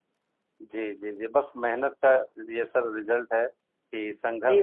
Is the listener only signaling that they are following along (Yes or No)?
Yes